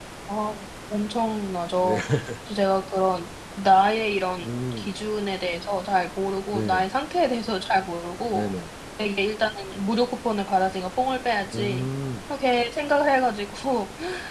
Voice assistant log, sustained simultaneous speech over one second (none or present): none